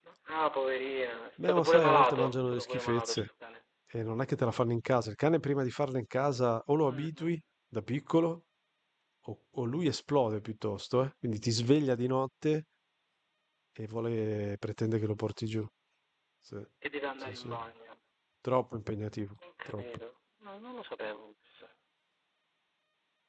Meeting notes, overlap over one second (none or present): present